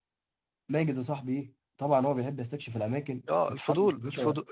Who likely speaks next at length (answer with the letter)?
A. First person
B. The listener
B